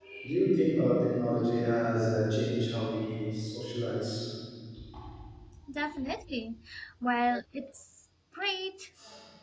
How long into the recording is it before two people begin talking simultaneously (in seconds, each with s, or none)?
none